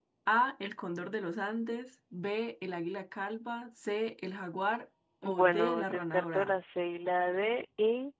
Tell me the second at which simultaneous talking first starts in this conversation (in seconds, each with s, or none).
5.2 s